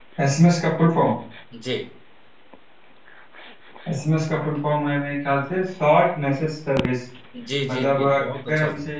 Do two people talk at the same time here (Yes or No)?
Yes